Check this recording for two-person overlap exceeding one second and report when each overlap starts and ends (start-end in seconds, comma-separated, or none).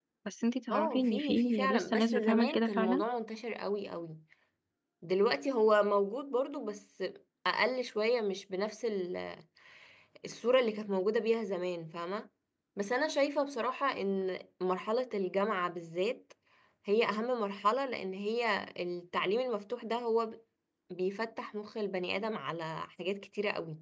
0.7-3.0